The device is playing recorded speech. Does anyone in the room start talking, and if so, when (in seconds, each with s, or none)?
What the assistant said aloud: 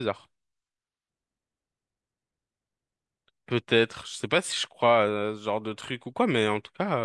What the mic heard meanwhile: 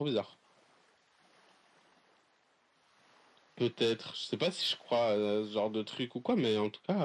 none